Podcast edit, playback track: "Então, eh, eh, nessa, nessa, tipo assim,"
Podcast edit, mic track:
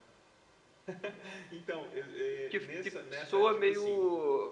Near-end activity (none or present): present